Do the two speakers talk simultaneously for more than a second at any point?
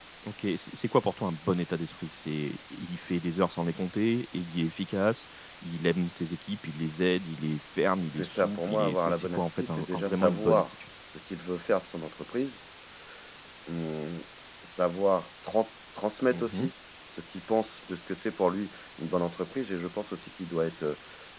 Yes, from 8.0 s

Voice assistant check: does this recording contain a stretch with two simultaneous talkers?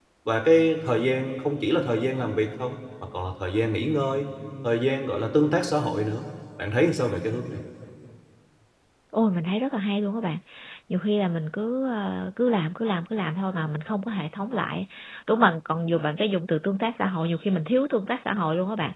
No

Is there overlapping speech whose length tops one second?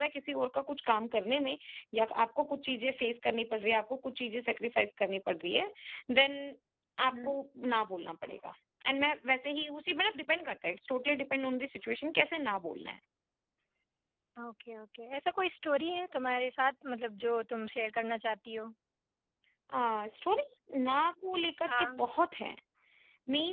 No

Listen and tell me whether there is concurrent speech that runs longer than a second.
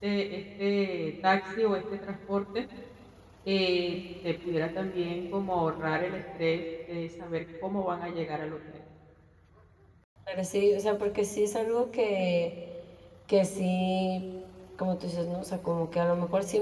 No

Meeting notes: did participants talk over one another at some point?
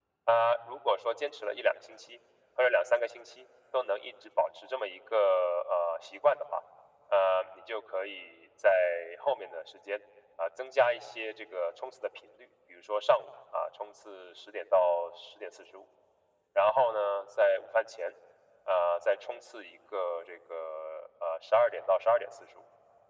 No

